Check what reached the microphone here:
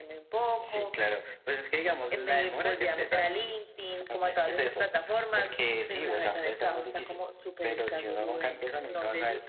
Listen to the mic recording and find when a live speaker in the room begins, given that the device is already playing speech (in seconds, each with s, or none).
none